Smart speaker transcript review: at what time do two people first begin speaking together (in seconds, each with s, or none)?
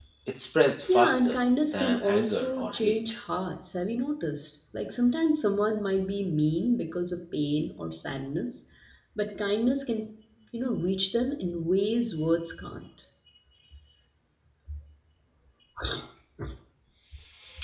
0.9 s